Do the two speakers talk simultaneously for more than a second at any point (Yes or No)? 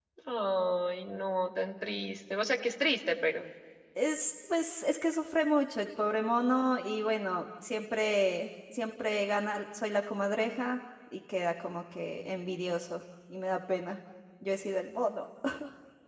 No